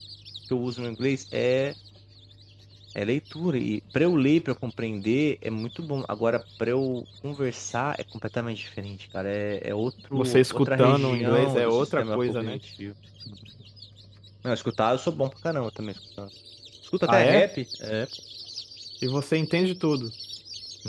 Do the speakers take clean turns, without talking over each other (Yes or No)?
No